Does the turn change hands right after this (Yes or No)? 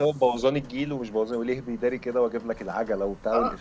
Yes